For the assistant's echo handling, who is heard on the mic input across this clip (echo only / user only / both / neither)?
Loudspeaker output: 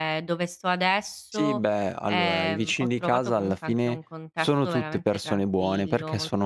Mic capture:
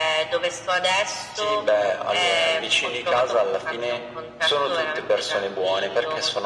echo only